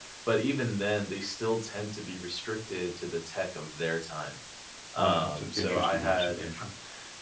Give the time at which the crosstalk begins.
5.0 s

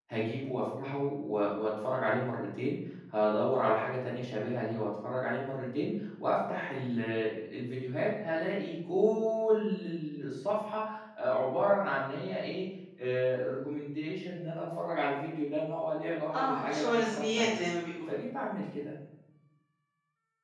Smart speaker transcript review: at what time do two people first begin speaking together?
16.3 s

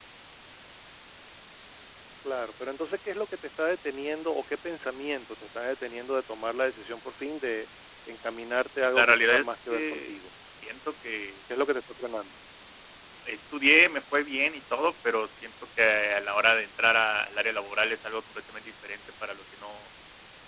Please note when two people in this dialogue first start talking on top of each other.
8.9 s

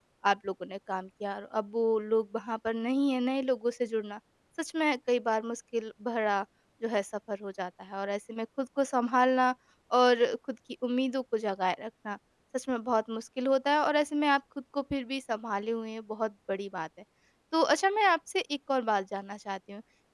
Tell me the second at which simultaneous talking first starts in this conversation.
none

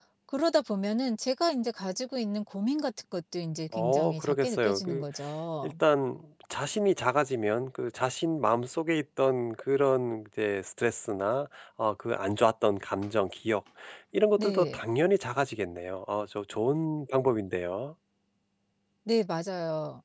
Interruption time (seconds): 3.7 s

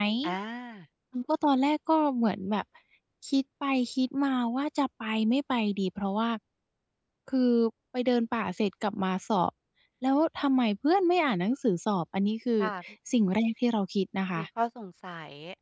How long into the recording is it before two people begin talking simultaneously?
none

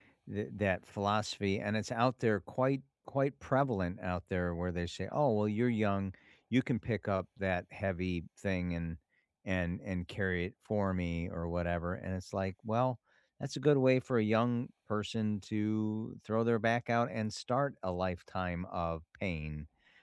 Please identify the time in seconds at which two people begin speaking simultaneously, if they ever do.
none

